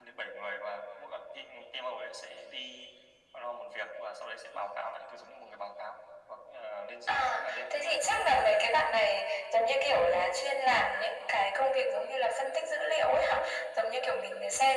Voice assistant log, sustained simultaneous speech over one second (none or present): present